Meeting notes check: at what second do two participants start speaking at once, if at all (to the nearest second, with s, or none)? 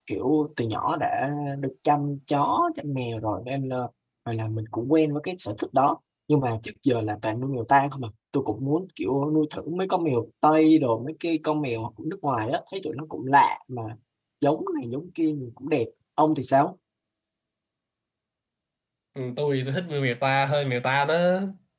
none